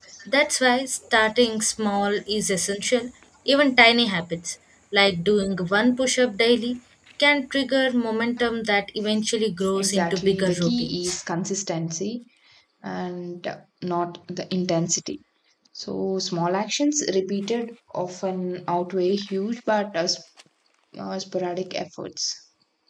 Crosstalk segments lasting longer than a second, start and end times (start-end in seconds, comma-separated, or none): 9.8-11.1